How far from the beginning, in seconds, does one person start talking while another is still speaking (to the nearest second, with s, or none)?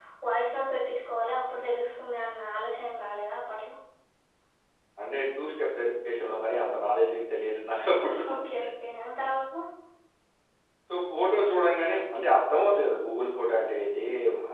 none